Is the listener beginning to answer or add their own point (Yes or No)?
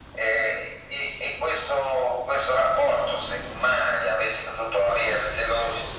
No